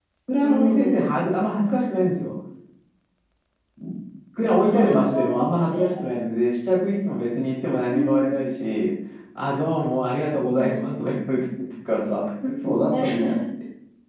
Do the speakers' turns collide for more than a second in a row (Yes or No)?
Yes